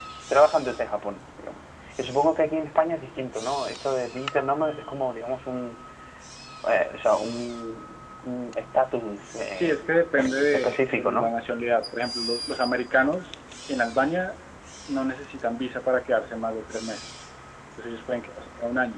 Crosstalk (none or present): present